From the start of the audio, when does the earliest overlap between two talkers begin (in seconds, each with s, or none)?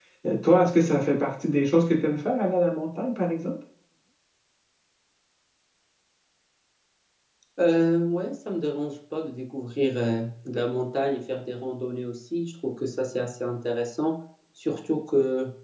none